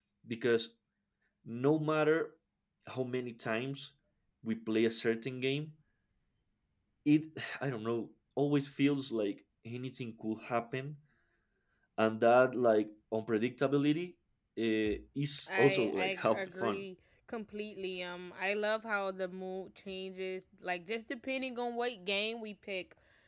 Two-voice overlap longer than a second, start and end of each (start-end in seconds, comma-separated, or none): 15.5-16.8